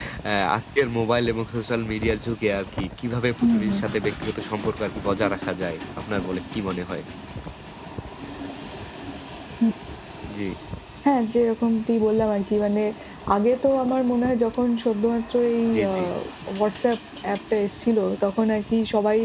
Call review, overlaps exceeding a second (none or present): none